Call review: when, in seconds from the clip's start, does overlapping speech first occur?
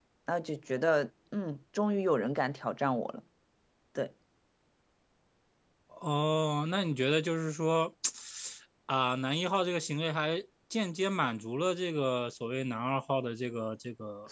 none

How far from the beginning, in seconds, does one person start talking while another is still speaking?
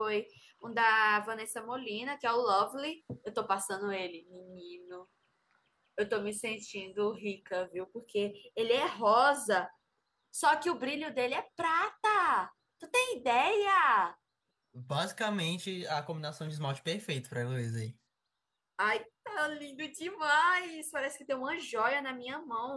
none

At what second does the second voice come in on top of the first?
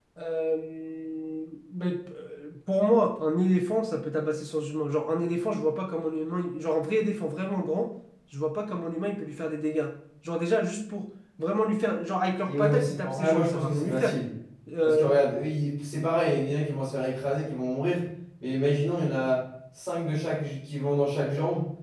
12.5 s

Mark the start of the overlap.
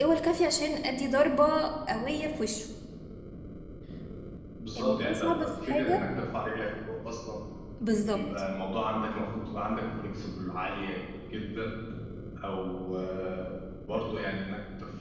4.8 s

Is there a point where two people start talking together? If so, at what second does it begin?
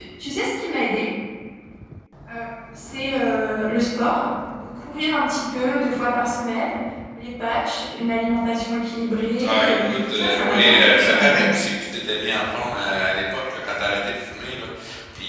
9.4 s

